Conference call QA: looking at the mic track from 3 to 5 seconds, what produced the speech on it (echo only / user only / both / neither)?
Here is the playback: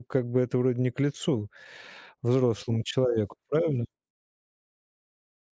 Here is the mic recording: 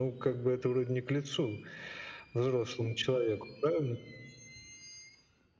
echo only